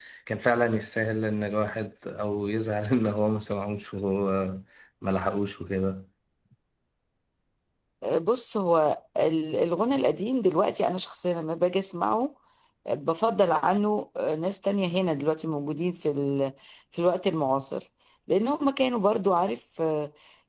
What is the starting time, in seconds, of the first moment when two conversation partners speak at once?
none

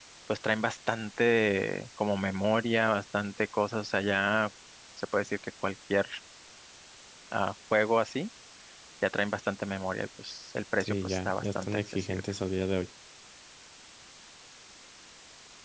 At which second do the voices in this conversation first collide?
10.8 s

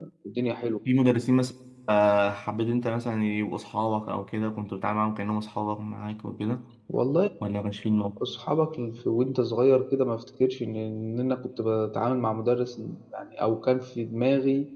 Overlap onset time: none

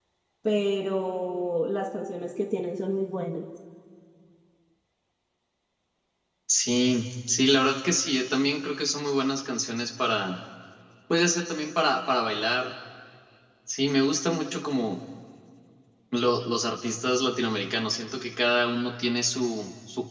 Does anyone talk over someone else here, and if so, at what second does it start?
none

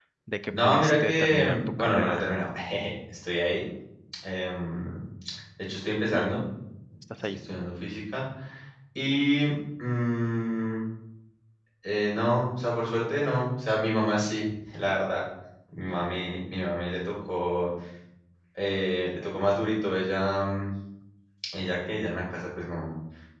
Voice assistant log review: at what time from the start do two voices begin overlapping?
0.5 s

